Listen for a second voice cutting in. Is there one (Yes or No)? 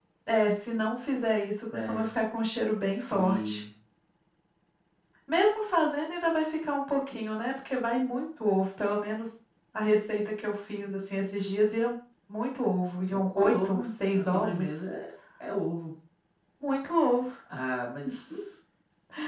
Yes